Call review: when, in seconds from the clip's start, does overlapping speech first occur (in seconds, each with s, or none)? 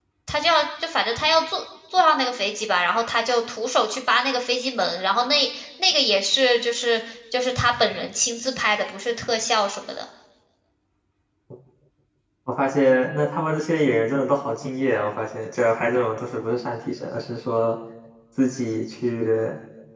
none